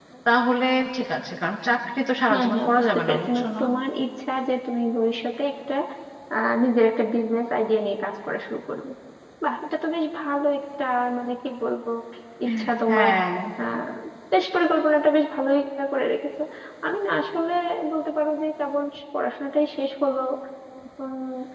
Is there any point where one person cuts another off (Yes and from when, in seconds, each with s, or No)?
Yes, from 2.3 s